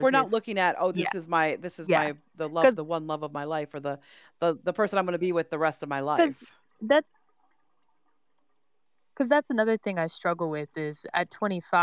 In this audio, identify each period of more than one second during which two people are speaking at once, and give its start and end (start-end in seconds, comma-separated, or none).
none